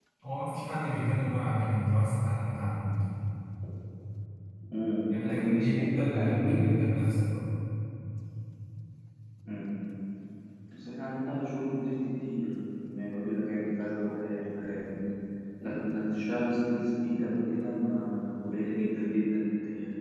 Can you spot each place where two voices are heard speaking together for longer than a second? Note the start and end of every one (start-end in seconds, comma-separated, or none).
5.2-6.7